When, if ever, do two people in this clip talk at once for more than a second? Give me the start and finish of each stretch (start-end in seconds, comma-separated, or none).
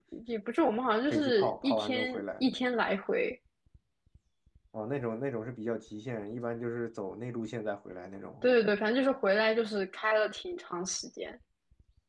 1.1-2.5